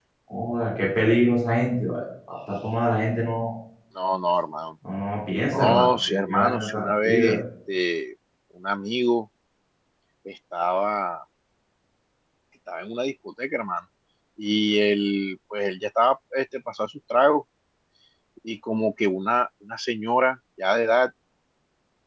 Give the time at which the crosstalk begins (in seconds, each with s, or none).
5.5 s